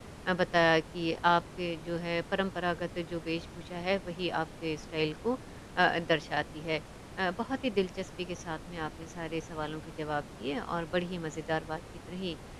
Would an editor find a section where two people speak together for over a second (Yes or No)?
No